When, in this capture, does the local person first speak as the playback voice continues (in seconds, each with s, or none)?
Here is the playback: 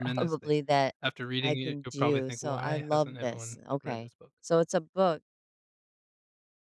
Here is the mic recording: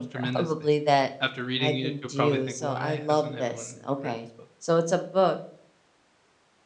none